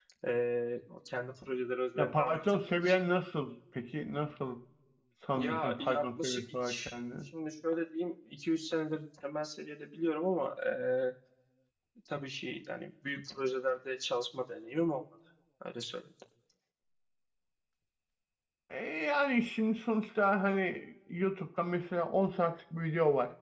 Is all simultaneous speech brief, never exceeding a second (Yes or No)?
No